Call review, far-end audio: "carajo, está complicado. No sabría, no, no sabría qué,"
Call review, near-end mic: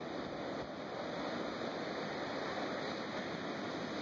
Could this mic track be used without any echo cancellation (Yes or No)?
Yes